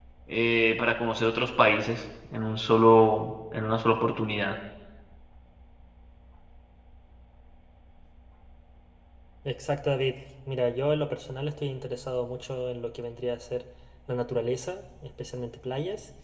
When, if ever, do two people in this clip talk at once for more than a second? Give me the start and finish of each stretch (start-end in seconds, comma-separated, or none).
none